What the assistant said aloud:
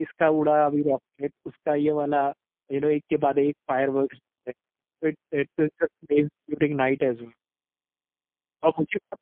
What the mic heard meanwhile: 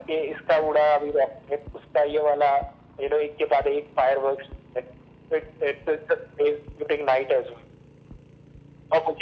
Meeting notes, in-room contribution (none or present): none